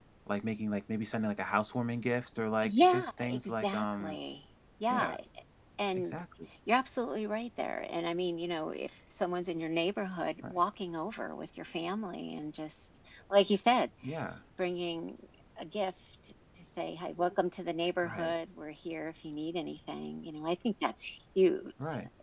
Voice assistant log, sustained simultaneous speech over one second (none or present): present